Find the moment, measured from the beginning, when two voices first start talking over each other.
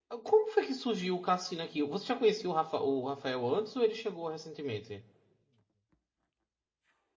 none

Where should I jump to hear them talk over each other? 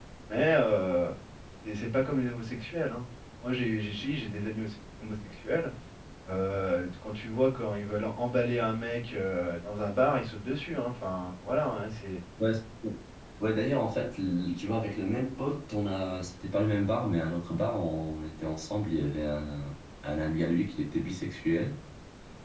none

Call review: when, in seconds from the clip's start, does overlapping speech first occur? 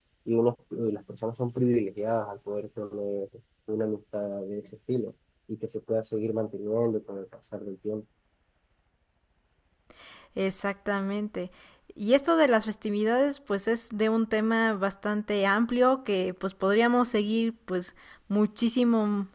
none

